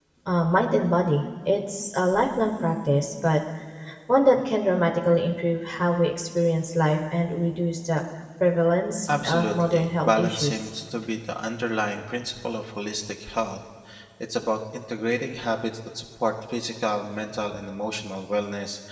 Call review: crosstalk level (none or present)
present